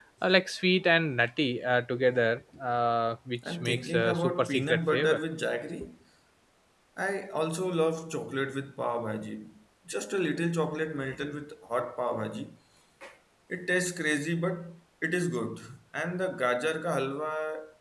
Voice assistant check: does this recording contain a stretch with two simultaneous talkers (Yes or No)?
Yes